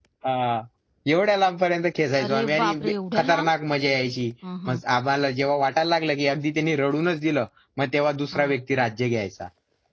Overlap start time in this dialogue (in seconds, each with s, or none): 2.2 s